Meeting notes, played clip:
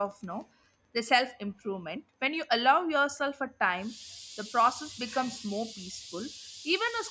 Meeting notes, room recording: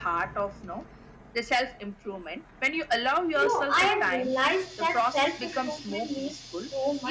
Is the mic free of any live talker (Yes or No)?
No